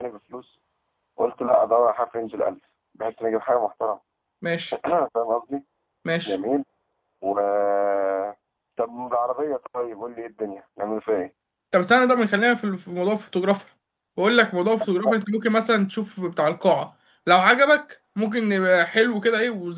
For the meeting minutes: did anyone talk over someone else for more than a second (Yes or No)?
No